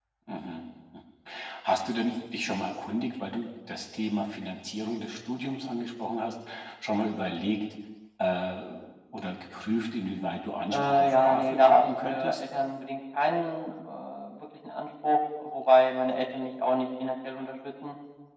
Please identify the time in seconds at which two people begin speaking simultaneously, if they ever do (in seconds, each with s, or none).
10.7 s